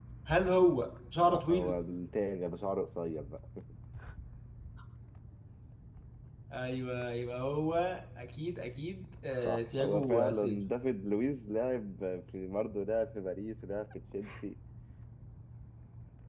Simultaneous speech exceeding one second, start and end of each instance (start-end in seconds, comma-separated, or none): 9.4-10.6